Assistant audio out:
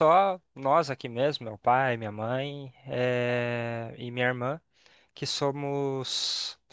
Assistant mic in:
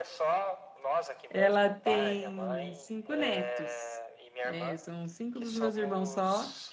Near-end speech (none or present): present